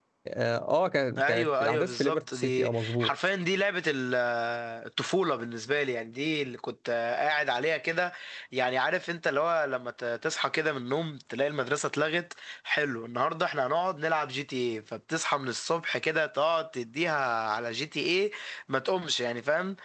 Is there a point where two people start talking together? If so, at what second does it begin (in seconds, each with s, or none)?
1.2 s